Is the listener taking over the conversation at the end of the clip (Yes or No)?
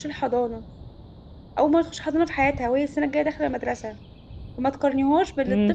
No